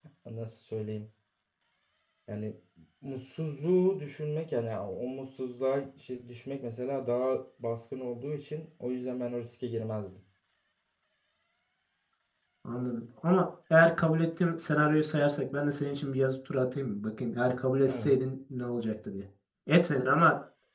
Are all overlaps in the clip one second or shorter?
Yes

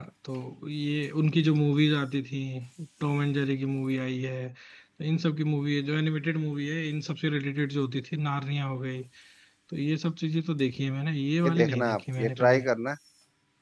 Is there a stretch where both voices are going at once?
Yes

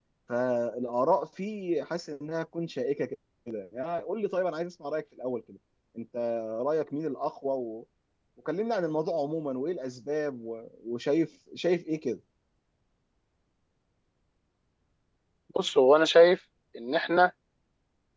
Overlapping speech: No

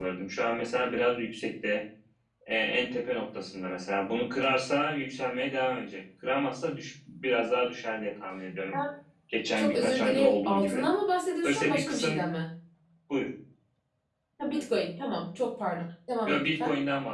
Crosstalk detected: Yes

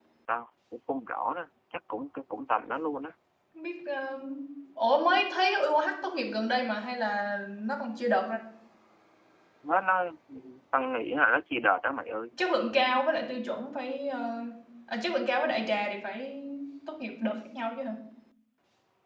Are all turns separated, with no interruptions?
Yes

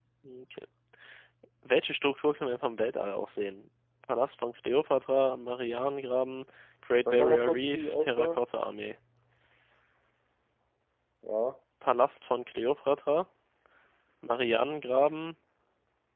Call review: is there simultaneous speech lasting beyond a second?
Yes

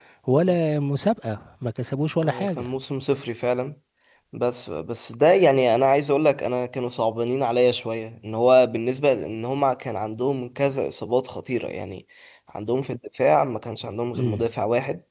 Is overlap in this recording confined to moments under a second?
Yes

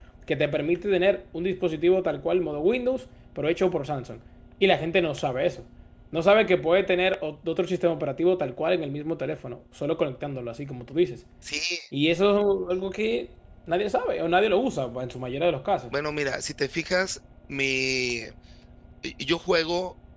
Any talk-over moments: No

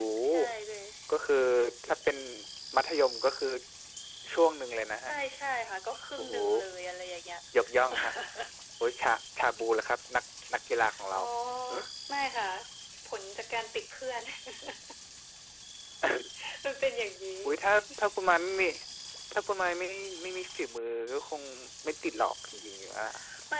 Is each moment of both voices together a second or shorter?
Yes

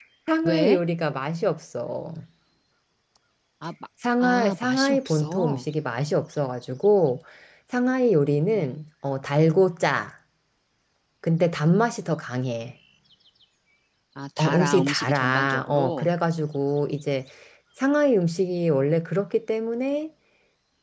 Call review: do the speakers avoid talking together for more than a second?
No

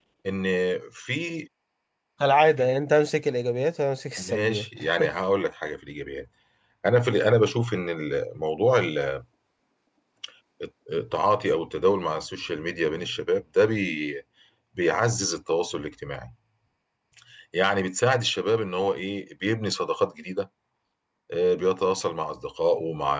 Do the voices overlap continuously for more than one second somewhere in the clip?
No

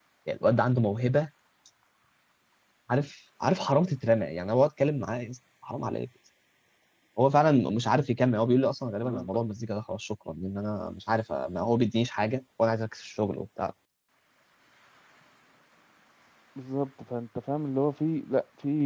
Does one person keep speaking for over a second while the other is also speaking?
No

